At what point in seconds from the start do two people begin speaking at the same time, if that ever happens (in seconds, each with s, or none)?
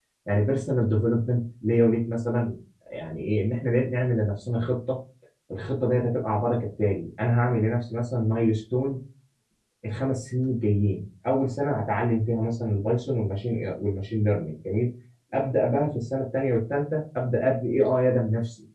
none